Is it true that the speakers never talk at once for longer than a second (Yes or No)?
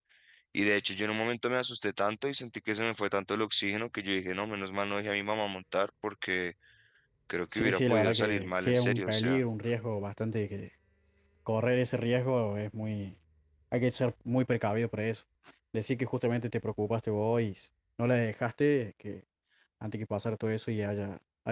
No